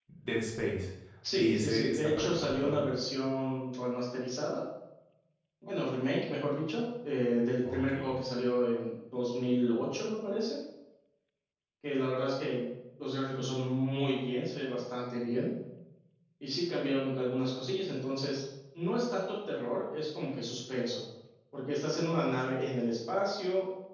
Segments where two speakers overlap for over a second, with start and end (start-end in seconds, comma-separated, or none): 1.4-2.8